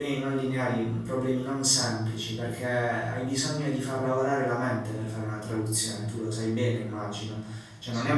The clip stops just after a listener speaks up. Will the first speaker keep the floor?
Yes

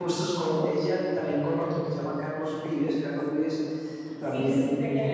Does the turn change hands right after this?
Yes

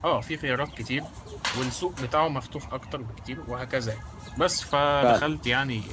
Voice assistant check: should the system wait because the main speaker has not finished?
Yes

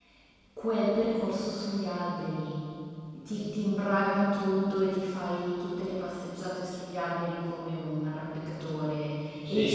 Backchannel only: No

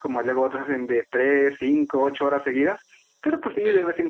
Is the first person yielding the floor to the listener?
No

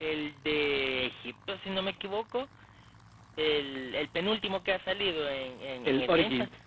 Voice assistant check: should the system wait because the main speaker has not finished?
Yes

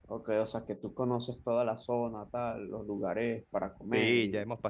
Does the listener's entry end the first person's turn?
Yes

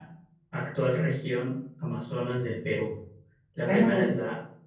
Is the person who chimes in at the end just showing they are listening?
Yes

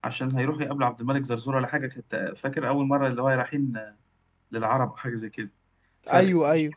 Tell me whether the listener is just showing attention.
Yes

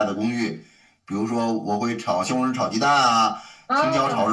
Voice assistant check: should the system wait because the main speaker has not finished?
Yes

